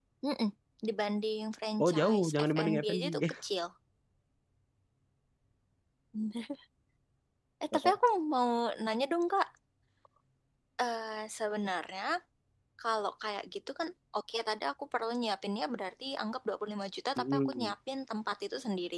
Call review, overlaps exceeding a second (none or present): present